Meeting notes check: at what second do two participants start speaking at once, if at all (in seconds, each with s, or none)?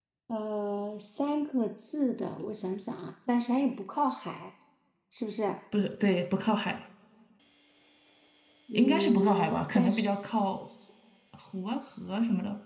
8.8 s